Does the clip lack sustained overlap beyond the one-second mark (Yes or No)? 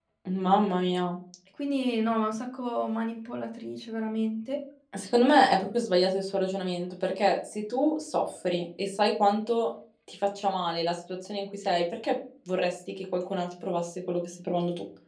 Yes